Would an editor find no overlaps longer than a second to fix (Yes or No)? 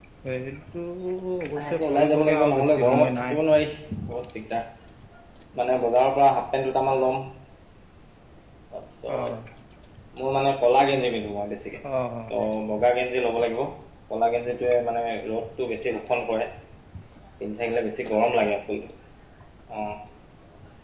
No